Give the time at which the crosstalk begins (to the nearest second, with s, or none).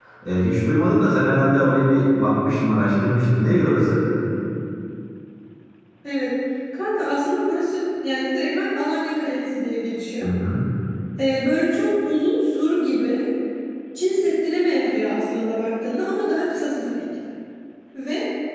none